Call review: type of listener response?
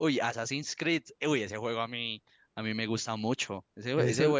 listening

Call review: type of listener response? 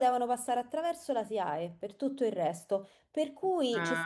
listening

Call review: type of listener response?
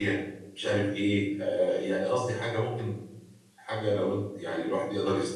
listening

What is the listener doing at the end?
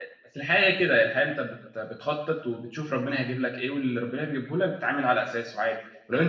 listening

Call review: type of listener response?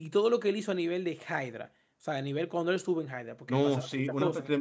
taking over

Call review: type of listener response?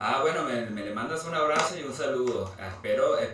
listening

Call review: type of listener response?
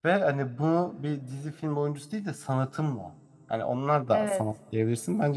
listening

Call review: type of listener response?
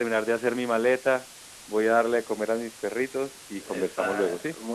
taking over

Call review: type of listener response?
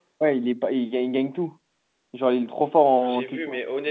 taking over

